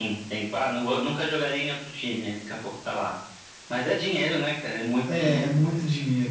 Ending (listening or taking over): taking over